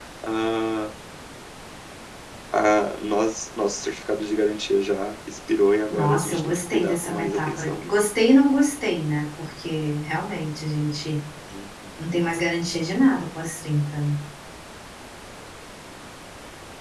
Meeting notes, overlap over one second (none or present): present